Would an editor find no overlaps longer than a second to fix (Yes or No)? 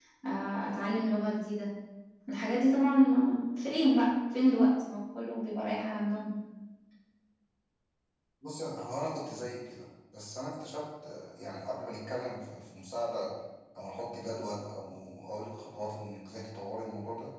Yes